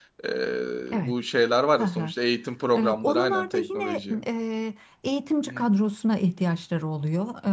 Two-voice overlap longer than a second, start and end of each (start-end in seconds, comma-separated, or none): 2.8-4.2